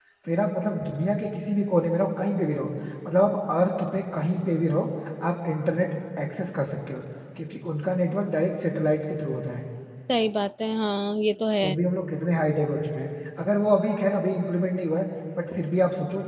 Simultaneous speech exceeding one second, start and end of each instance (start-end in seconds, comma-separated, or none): none